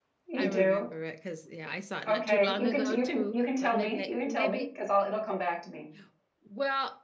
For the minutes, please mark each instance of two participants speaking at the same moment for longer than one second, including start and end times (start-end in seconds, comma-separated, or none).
2.1-4.7